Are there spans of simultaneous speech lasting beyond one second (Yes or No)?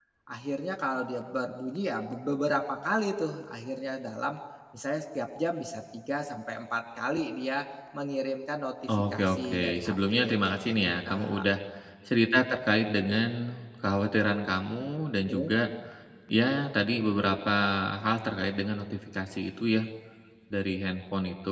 Yes